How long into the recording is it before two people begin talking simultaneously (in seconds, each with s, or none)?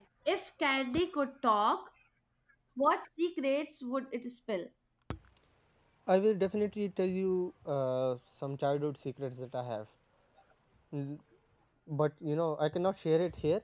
none